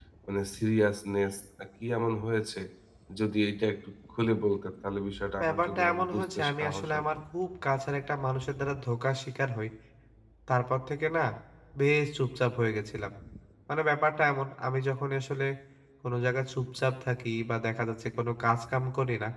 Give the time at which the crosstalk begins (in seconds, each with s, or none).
5.4 s